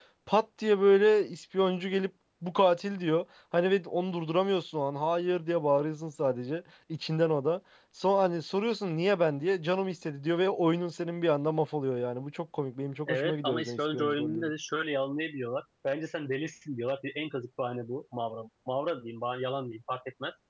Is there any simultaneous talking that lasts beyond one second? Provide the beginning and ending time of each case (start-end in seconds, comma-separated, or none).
13.1-14.5